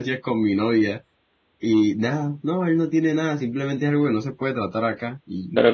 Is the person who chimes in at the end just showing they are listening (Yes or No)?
No